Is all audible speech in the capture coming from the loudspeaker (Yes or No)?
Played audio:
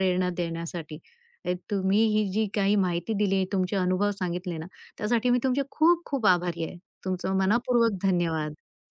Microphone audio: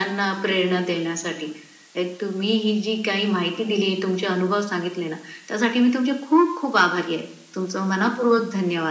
Yes